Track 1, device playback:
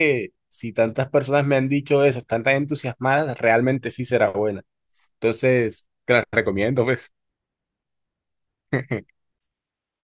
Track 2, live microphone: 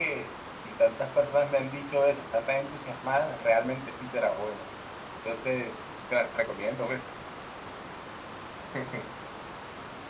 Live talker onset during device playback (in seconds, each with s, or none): none